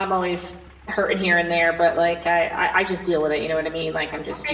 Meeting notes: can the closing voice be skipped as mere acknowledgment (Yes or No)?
No